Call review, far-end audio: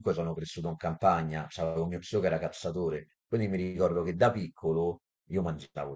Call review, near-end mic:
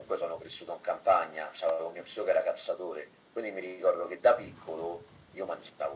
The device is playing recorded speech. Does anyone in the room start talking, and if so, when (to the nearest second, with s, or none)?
none